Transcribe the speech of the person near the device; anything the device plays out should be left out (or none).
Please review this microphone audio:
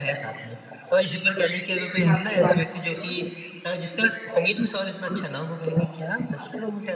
बिल्कुल, आपकी बात ठीक है।